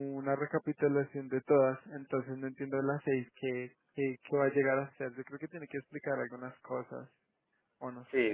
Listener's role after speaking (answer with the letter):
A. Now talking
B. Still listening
A